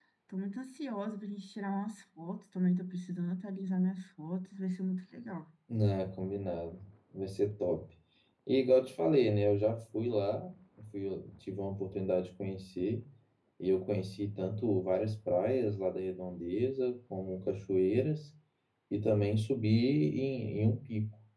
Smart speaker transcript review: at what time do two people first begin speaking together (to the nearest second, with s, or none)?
none